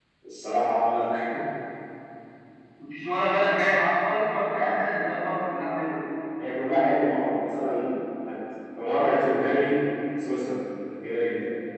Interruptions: none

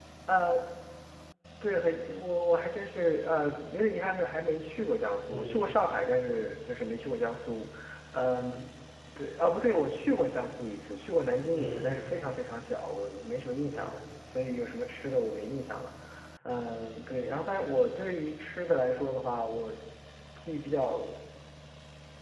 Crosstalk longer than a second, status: none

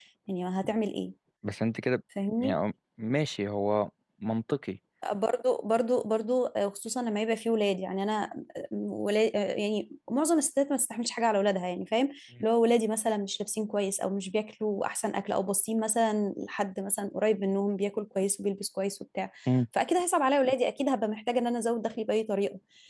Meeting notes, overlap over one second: none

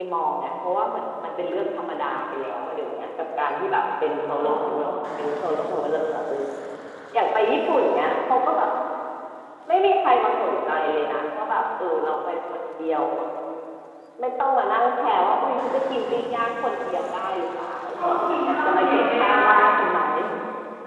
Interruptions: present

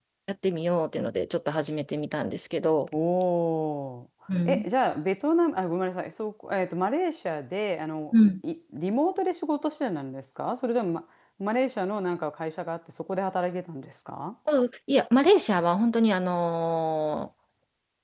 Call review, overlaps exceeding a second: none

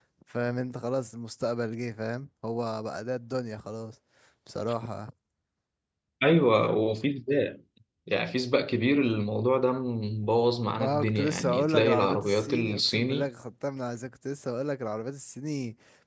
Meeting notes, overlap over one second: present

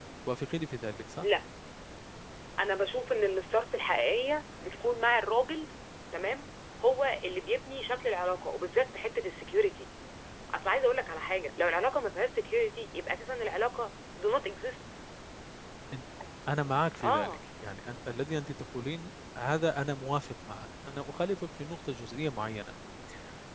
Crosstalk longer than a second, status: none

